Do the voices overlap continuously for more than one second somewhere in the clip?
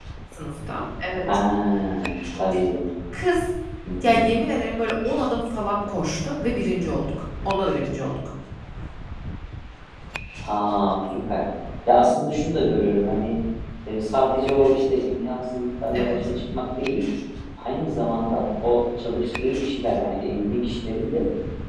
No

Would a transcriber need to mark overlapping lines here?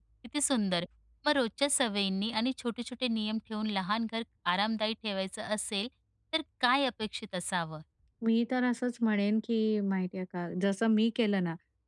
No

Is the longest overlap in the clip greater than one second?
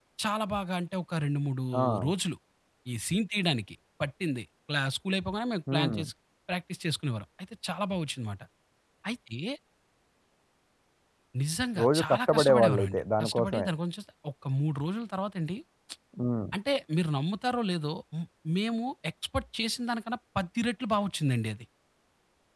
Yes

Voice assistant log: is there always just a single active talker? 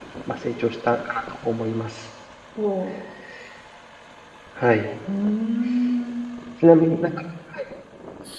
Yes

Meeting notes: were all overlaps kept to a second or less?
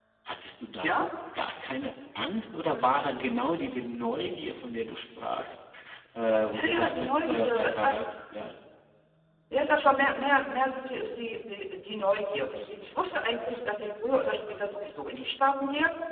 No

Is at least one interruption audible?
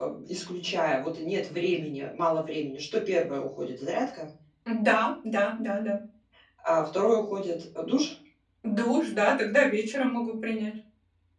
No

